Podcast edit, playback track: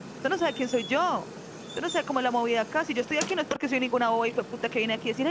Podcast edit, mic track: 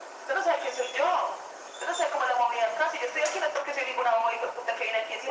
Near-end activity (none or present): none